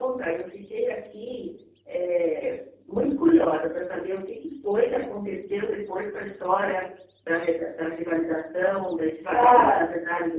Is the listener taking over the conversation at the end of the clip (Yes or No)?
No